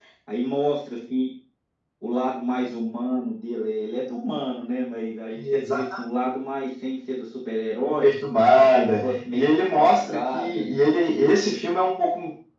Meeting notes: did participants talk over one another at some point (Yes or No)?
Yes